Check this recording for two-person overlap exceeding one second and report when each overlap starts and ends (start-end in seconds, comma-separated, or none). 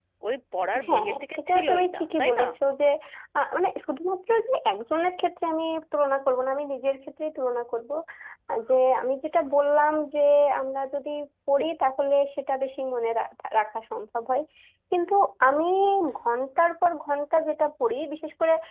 0.8-2.4